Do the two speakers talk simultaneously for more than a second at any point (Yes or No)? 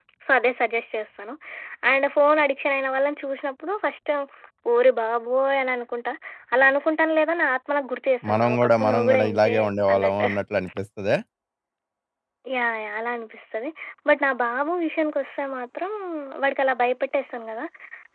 Yes